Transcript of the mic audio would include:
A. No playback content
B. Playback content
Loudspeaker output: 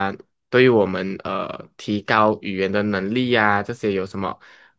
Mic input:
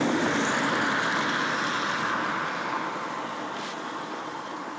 A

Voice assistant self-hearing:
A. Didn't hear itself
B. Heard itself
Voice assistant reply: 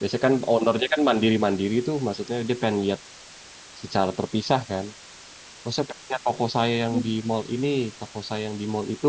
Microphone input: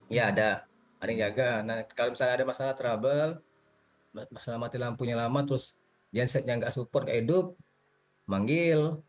A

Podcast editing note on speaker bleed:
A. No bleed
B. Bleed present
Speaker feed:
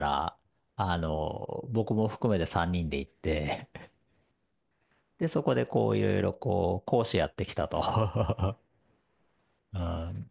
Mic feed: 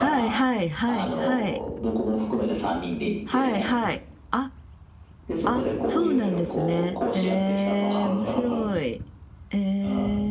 B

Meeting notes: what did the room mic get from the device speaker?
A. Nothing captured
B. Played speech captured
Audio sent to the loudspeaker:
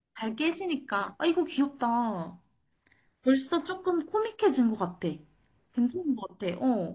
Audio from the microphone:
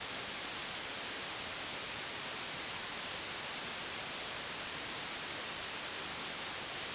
A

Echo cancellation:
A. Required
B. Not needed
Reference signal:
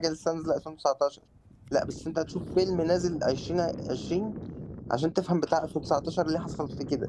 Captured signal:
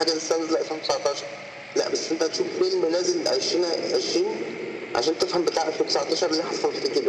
A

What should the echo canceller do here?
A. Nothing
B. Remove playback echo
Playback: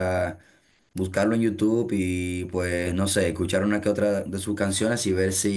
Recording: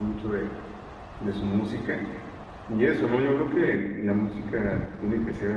A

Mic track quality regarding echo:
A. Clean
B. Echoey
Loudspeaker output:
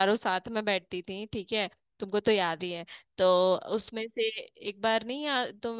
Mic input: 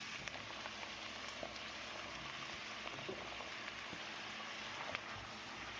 A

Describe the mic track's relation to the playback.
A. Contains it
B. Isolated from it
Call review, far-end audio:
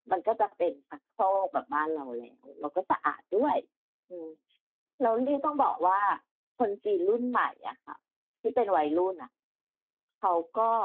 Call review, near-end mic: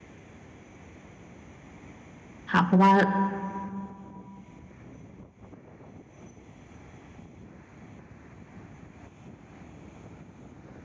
B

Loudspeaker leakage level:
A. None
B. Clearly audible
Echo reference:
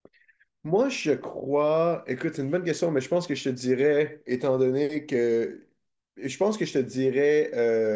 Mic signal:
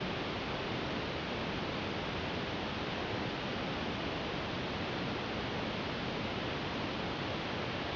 A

